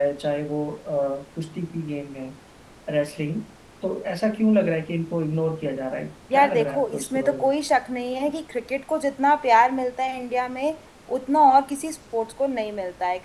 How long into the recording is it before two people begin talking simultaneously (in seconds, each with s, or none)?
6.3 s